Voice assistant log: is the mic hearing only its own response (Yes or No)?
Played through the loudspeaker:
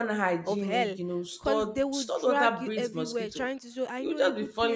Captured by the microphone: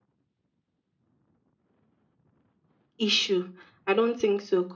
No